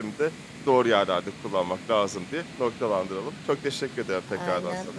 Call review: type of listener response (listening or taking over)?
taking over